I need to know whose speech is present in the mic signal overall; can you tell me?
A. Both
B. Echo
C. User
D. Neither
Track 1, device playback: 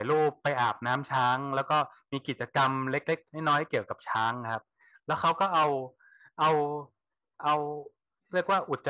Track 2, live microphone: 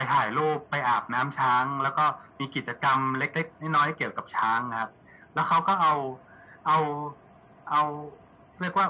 B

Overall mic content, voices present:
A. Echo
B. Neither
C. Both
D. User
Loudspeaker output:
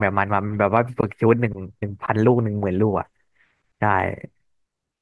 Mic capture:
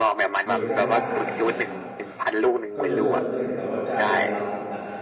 C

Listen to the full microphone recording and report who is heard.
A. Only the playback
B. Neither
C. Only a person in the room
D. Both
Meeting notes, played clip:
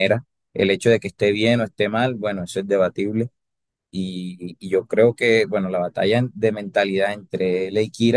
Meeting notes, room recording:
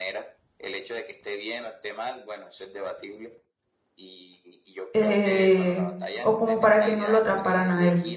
D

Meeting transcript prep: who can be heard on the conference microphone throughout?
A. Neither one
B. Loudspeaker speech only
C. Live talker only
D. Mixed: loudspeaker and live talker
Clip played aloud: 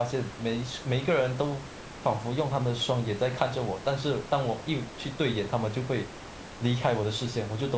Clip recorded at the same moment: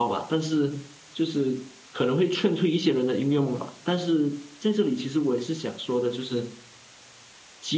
C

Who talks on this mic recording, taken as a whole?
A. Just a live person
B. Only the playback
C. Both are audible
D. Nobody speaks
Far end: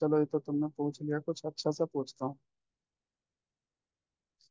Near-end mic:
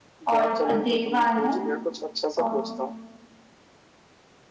C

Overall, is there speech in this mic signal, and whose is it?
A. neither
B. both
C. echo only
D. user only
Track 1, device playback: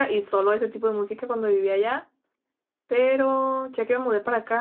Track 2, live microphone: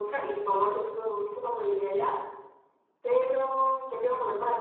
C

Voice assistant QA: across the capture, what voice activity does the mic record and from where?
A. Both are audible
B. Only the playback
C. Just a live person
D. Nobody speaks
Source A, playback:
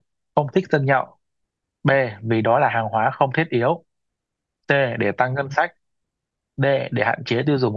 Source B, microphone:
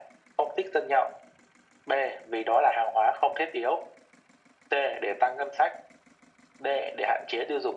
B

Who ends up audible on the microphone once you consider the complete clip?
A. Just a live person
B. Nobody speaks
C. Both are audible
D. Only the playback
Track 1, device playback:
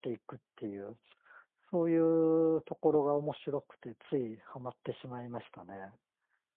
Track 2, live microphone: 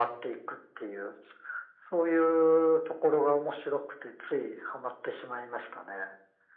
D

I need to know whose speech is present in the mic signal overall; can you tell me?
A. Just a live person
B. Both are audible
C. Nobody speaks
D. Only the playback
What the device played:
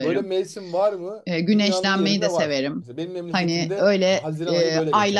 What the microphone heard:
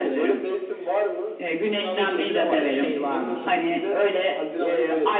B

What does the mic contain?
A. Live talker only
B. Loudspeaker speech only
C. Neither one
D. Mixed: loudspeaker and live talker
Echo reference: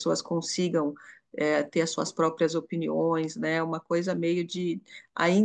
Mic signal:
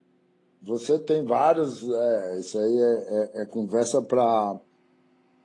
A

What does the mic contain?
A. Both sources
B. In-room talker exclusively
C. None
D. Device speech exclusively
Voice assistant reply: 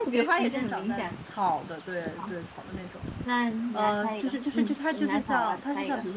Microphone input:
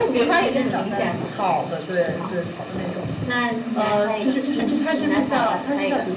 D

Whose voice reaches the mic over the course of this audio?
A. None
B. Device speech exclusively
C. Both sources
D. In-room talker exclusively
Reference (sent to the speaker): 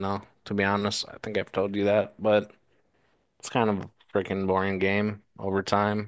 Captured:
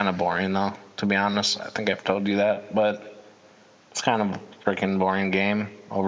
B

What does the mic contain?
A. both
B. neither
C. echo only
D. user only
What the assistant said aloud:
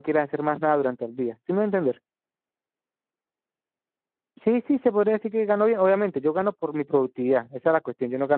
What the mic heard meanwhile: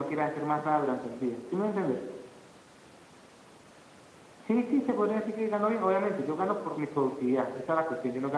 C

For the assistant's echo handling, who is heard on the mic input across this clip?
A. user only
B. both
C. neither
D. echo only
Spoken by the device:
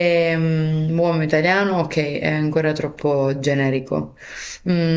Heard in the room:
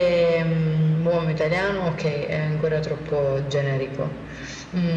D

